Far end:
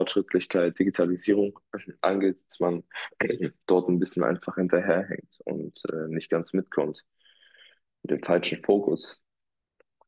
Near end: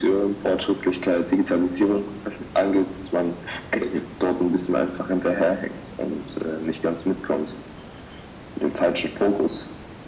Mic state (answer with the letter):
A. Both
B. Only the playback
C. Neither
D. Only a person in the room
B